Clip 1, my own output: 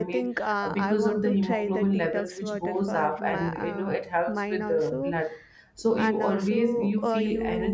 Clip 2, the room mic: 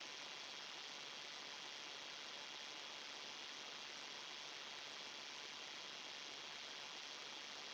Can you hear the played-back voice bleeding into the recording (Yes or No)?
No